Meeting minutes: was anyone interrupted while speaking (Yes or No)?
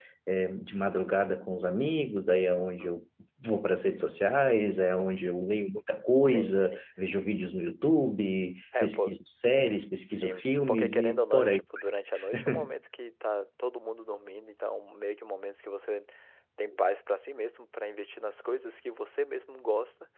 Yes